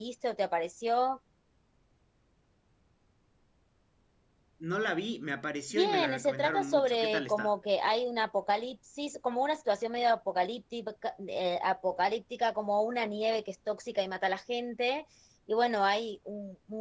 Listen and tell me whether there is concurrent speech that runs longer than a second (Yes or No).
Yes